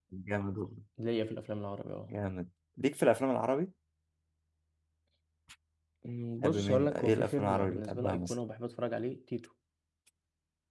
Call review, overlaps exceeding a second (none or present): present